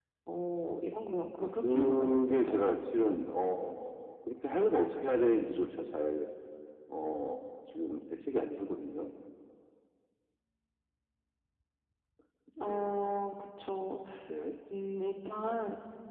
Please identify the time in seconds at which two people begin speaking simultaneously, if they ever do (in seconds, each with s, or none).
1.4 s